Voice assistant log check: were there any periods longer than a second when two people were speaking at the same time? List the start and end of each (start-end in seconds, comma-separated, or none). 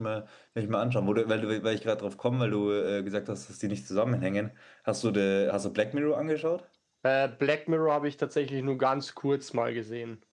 none